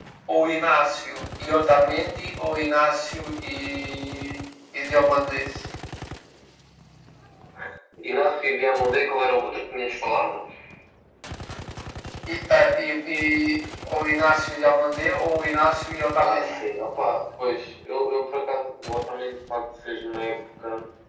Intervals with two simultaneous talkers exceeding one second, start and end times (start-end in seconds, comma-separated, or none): none